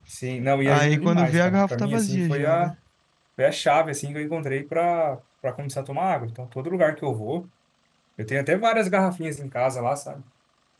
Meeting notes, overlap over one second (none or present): present